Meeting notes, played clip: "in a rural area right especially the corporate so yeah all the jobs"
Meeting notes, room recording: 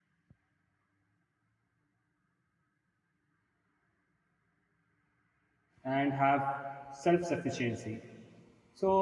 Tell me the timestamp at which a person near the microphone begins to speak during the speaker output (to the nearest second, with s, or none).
6 s